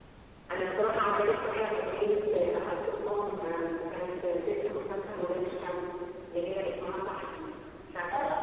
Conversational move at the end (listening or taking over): taking over